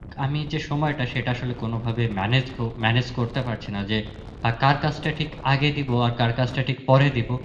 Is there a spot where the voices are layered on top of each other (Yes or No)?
No